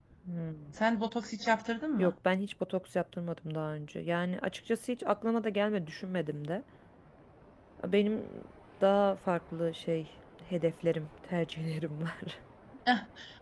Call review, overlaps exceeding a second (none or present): none